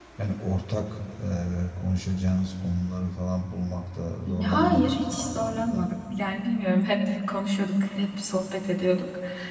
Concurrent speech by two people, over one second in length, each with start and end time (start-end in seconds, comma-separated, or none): 4.3-5.9